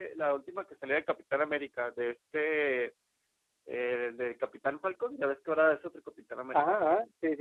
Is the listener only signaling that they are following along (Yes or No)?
No